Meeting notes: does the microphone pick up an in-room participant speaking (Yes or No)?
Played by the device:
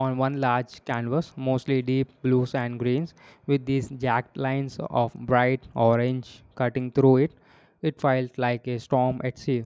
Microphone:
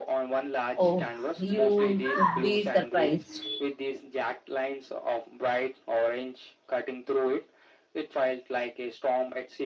Yes